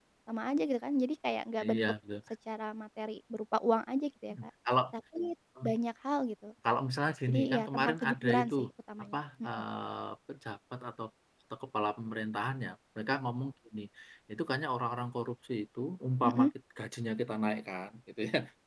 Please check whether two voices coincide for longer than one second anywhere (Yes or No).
Yes